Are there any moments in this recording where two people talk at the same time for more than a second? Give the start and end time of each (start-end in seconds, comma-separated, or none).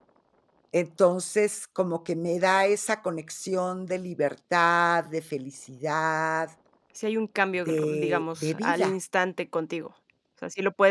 7.7-8.9